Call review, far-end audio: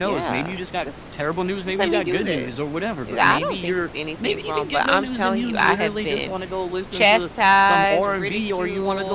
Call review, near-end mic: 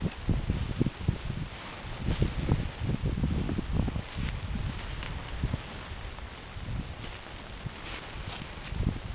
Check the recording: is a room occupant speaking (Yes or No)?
No